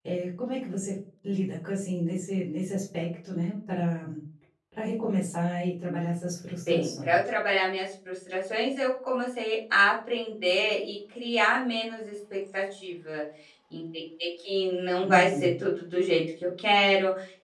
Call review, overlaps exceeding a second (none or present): none